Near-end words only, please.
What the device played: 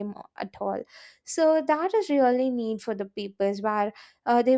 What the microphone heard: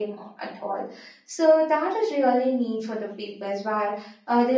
none

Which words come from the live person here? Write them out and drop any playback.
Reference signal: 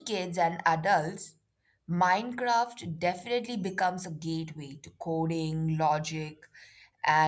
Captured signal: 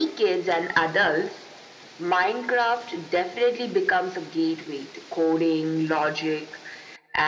none

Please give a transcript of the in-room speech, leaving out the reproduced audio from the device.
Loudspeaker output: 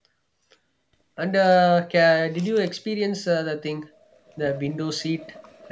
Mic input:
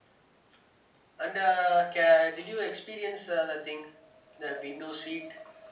none

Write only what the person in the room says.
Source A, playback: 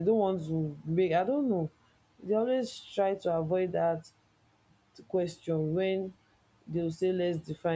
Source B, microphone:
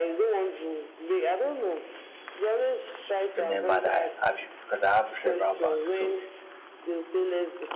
remember that I have UB because I have several banks. So

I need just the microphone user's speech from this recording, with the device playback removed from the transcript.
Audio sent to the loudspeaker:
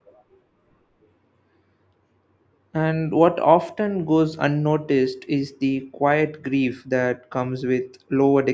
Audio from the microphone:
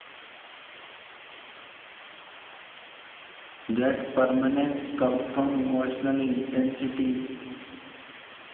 that permanence comes from emotional intensity

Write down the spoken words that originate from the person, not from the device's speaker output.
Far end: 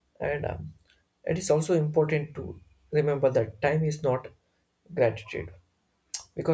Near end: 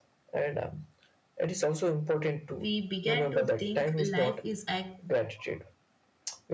we began to think life is a,

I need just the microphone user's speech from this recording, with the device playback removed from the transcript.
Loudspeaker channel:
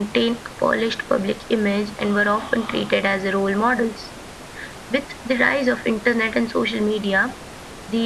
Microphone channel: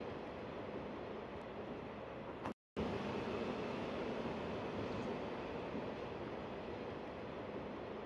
none

